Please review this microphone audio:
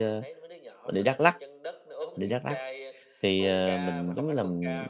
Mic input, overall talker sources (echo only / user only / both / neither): both